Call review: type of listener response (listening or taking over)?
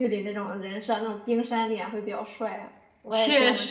taking over